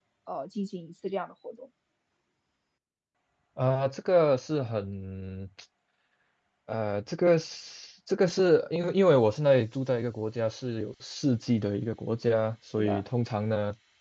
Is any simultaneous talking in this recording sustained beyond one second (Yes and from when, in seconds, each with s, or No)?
No